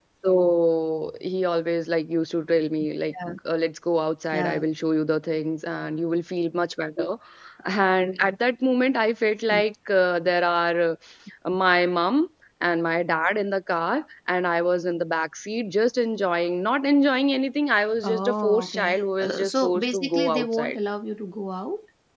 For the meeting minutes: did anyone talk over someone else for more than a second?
Yes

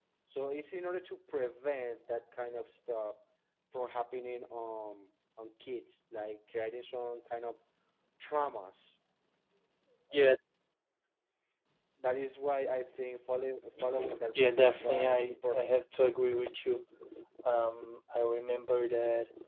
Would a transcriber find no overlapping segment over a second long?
No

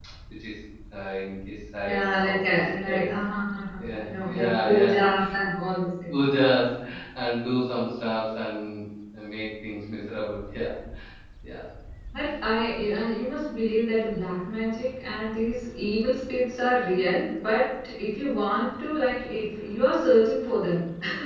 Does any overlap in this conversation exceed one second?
Yes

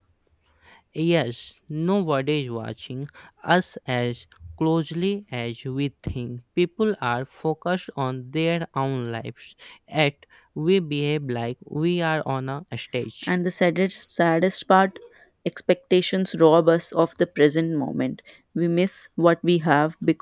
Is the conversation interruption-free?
Yes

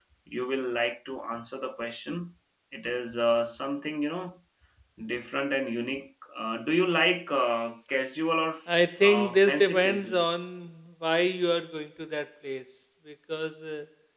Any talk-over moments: Yes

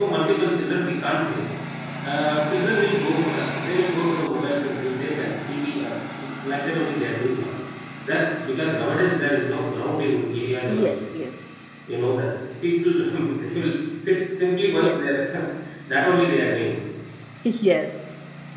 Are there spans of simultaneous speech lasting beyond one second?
No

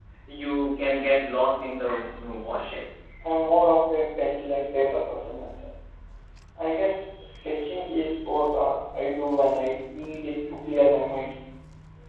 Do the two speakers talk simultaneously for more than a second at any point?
No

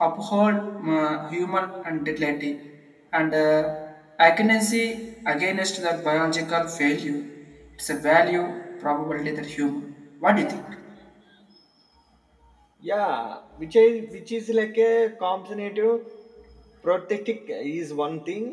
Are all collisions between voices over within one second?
Yes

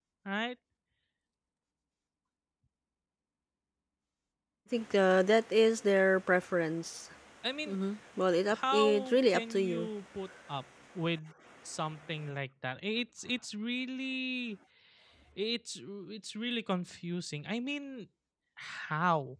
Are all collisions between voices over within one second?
No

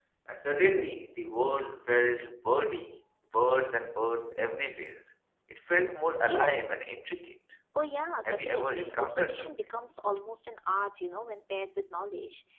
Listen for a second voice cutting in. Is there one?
Yes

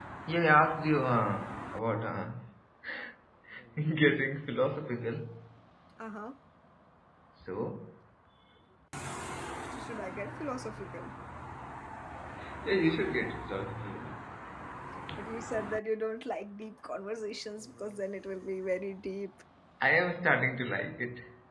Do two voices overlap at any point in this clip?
No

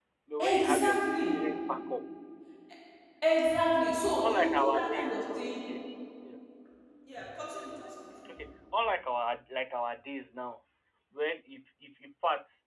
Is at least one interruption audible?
Yes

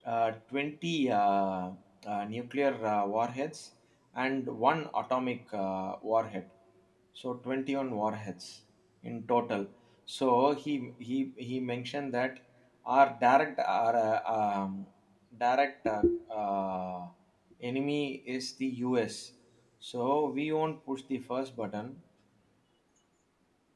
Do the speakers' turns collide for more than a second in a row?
No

